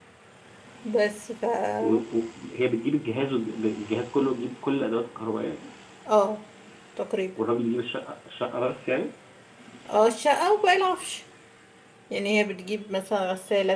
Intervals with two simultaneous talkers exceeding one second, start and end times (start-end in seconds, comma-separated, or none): none